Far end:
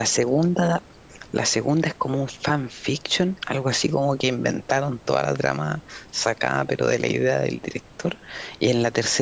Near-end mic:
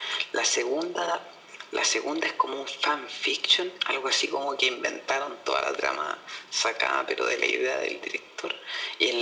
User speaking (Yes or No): No